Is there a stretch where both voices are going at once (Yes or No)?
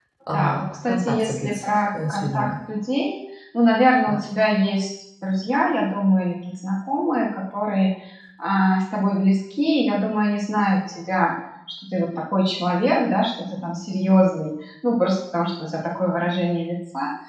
Yes